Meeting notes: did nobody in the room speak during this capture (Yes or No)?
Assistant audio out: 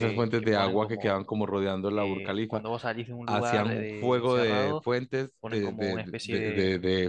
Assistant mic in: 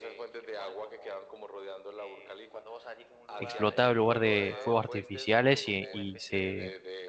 No